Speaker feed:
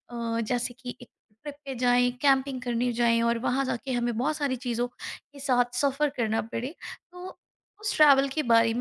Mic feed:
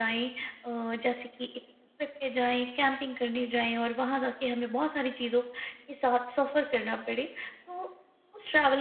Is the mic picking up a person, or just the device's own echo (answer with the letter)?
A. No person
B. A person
A